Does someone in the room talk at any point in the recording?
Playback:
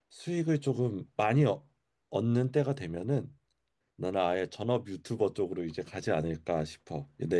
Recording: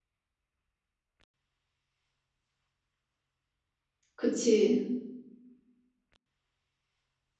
Yes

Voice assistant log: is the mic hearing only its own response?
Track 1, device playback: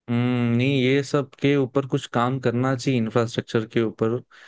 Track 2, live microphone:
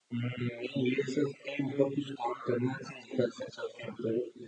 Yes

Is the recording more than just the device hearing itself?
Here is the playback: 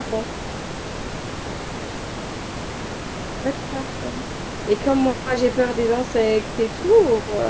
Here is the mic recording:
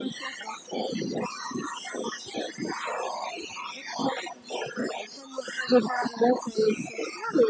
No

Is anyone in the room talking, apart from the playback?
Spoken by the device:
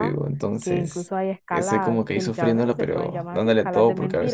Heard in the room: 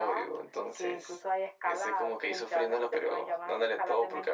No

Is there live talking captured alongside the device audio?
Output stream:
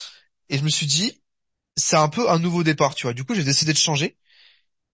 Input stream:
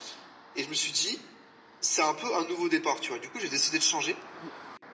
No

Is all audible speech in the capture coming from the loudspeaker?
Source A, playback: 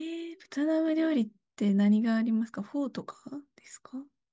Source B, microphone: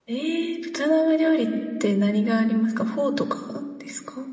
Yes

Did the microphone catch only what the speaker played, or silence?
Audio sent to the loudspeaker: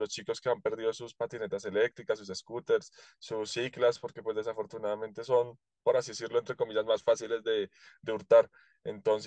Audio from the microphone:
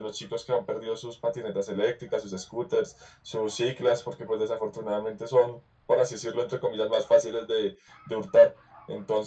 Yes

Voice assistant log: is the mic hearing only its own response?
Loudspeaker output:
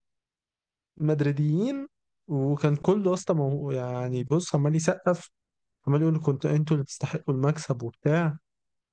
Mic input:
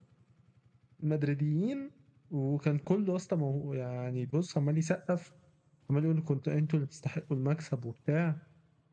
Yes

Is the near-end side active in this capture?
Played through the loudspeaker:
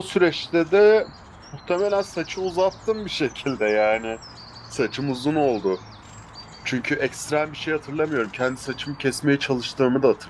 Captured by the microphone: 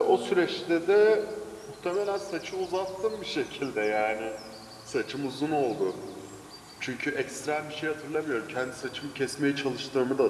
No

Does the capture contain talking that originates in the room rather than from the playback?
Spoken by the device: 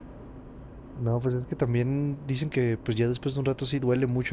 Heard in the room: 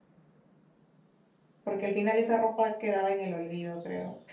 Yes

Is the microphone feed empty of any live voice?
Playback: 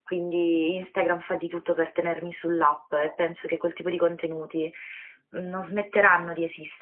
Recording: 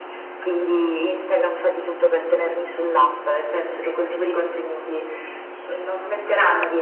Yes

